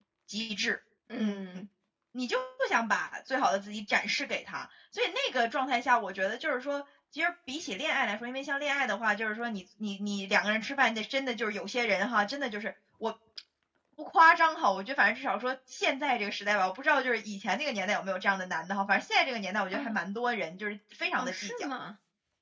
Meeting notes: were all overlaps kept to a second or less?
Yes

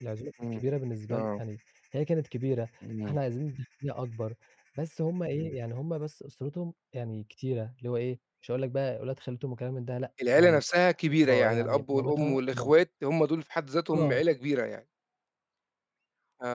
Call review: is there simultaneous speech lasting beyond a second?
Yes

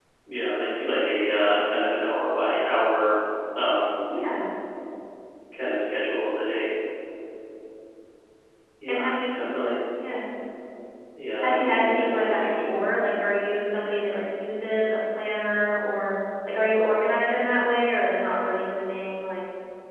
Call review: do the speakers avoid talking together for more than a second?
No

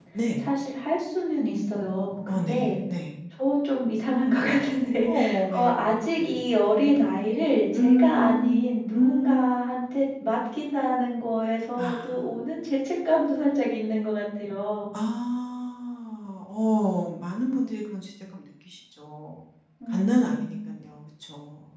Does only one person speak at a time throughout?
No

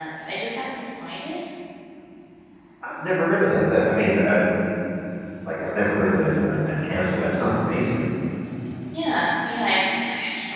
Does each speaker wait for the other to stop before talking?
Yes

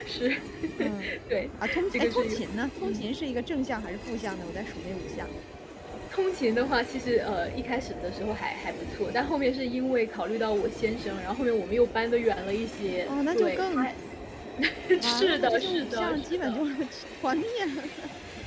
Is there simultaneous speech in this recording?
Yes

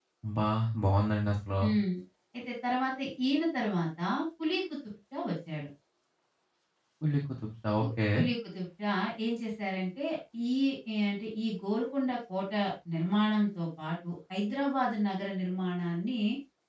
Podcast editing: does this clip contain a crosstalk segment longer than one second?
No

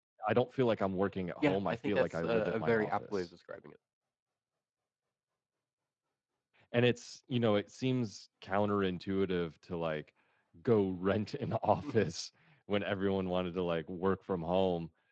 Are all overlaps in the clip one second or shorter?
No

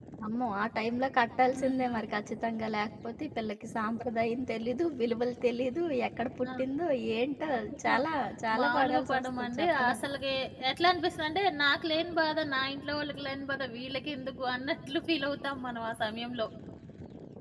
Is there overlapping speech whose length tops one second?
Yes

